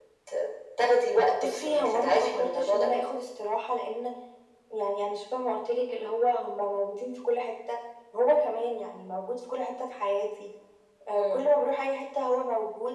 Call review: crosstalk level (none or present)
present